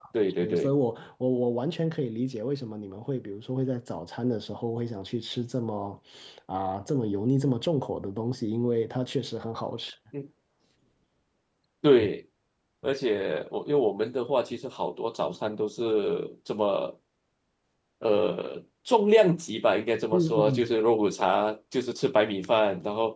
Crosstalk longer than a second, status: none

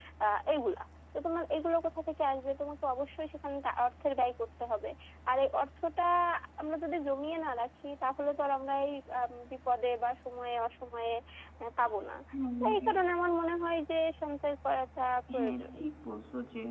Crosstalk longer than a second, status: none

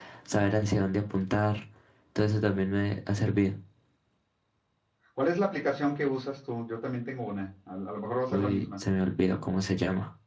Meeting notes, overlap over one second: none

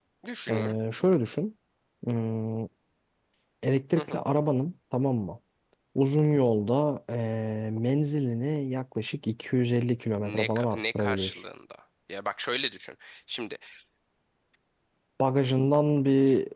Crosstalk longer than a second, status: present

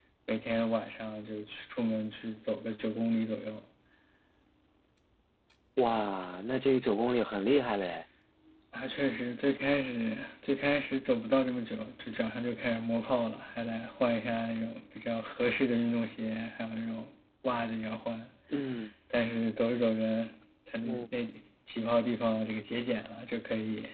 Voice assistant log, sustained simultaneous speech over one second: none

